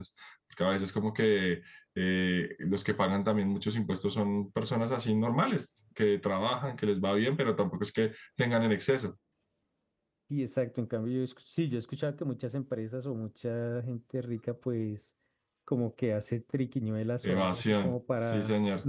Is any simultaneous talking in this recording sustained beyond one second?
Yes, from 17.2 s

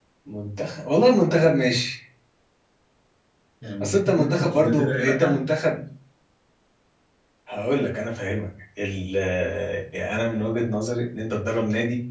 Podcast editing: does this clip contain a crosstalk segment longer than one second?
Yes, from 3.8 s

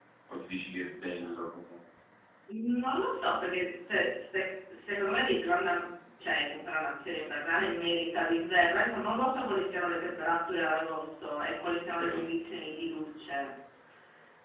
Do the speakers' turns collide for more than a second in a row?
No

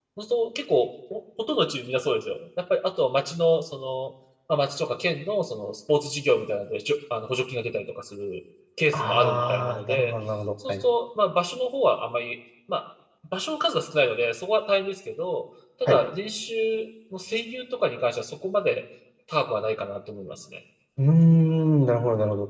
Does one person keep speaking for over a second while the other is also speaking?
Yes, from 8.9 s

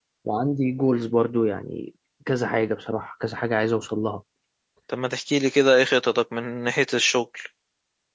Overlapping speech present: No

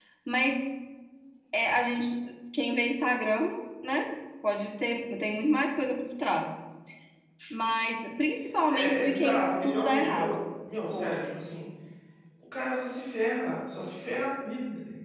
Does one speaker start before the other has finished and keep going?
Yes, from 8.7 s

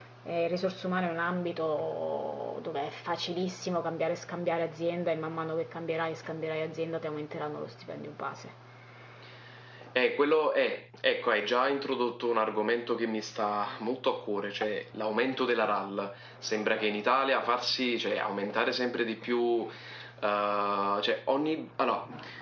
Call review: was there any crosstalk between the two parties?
No

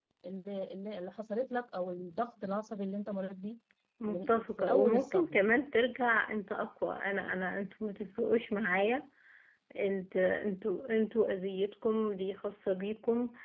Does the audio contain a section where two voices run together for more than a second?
Yes, from 4.1 s

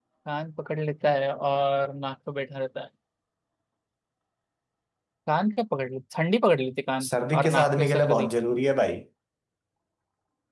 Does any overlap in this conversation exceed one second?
Yes, from 7.0 s

